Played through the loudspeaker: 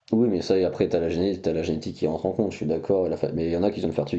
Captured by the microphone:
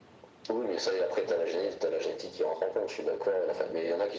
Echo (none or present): present